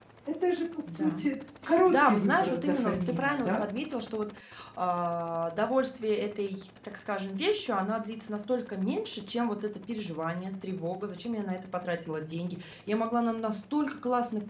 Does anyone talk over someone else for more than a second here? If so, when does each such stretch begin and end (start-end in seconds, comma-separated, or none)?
1.9-3.6